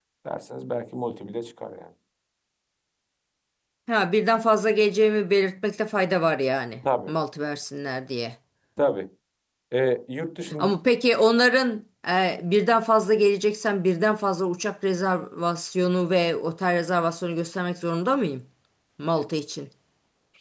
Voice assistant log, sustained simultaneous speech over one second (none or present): none